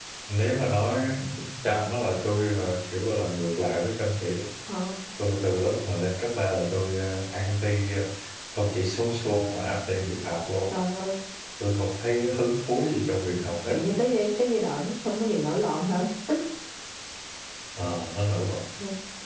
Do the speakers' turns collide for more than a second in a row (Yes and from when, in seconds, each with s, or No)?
No